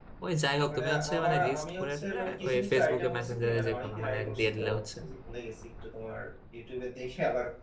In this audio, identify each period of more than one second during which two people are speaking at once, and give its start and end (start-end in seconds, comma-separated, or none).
0.7-5.0